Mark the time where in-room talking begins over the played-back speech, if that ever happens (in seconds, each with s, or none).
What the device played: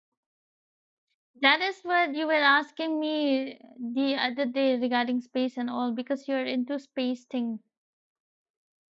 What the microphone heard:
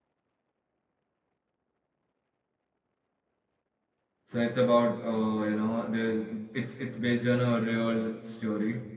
4.2 s